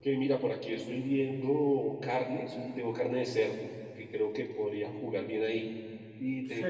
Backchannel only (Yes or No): No